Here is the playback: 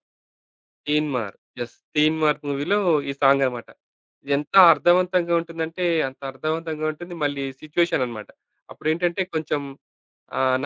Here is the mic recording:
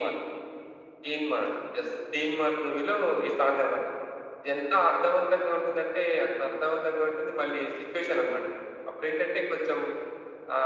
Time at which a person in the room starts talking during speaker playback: none

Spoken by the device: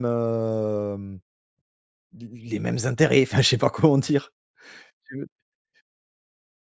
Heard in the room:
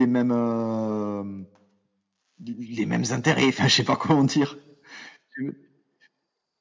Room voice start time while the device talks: none

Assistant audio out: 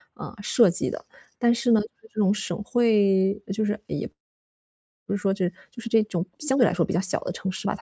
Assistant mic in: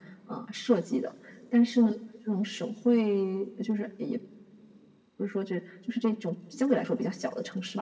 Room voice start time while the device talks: none

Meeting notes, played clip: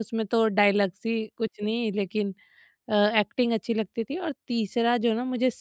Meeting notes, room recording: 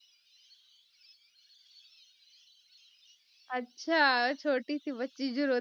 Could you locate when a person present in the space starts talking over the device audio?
3.6 s

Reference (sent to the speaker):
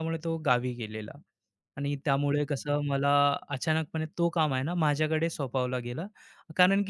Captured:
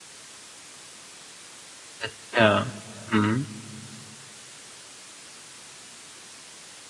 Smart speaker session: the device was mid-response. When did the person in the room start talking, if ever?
2.0 s

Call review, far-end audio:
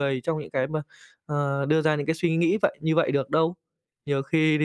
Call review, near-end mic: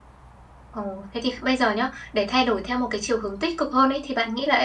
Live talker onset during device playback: 0.7 s

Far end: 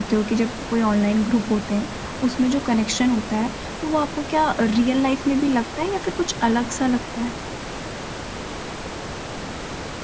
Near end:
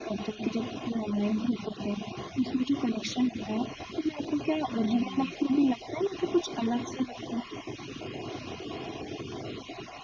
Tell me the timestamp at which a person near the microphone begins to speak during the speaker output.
4.7 s

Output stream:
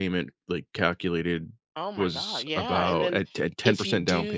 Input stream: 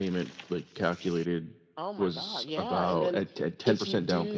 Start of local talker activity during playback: none

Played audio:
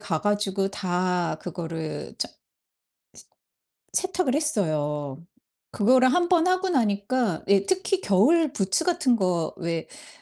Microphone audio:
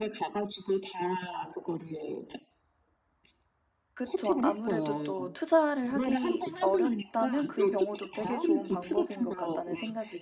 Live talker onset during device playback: 3.9 s

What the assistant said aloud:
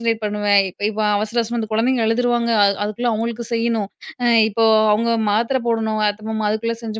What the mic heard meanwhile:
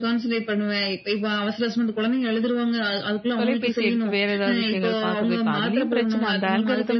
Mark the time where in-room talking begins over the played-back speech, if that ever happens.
3.4 s

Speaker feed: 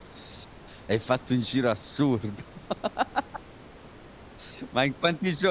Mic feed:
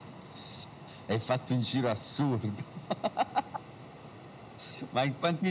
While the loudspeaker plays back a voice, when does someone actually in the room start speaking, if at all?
none

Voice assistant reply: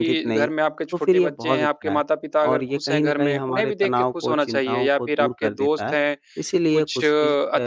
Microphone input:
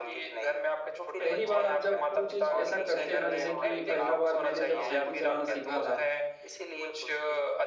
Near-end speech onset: 1.2 s

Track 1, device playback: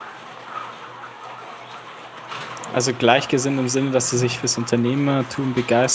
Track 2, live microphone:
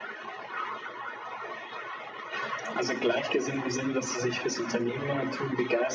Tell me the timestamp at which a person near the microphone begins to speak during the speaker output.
none

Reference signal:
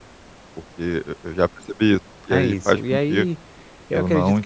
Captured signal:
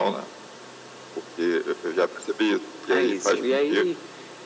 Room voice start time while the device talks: none

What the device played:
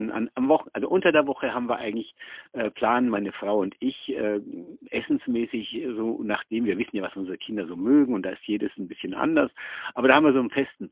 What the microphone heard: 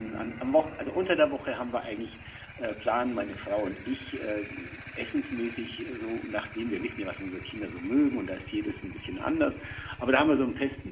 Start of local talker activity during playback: none

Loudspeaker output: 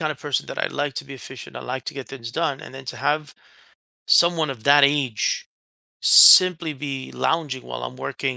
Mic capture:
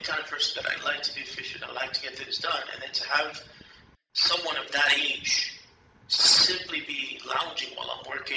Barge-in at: none

